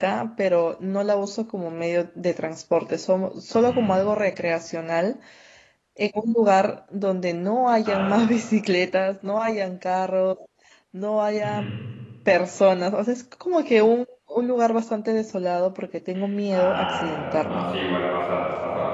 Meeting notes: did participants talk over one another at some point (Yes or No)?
Yes